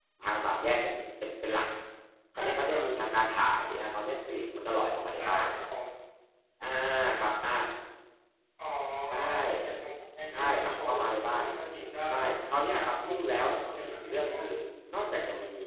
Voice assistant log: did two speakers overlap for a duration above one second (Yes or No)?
Yes